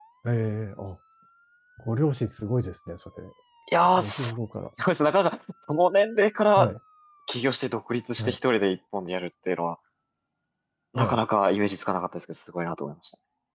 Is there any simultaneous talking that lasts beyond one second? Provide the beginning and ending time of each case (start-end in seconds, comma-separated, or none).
none